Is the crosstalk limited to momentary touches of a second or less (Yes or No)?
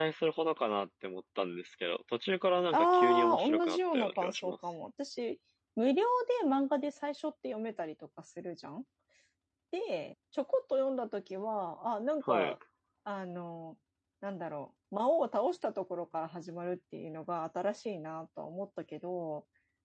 No